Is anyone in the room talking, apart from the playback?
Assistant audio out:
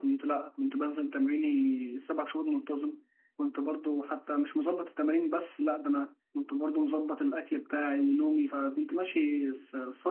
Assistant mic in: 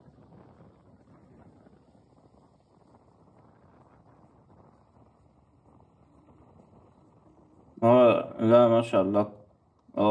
Yes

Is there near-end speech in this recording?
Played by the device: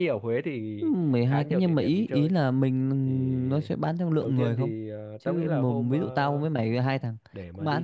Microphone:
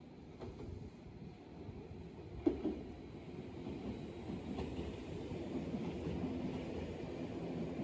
No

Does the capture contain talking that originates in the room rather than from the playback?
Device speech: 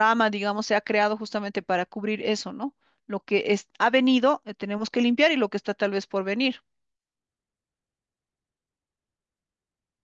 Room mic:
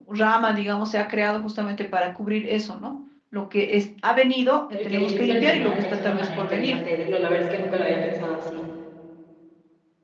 Yes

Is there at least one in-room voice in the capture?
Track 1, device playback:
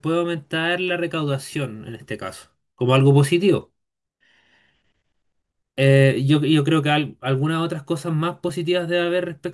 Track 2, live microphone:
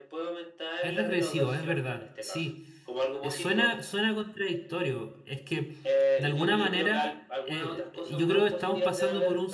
Yes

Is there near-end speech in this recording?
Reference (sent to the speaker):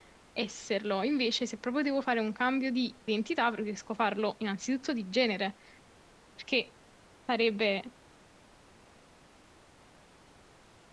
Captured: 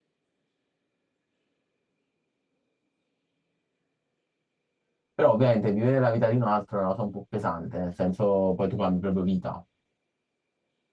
Yes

